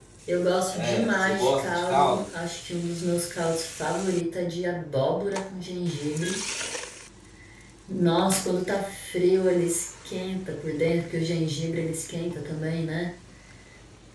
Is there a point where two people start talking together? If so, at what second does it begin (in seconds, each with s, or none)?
0.7 s